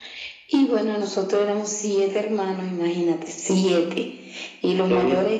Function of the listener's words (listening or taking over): listening